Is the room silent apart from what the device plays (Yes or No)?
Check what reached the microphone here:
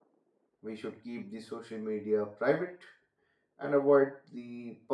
No